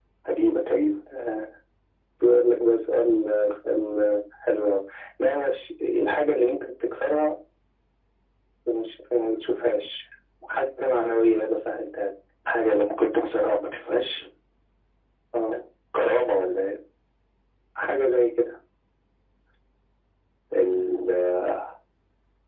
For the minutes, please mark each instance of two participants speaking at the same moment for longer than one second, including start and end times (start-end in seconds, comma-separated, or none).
none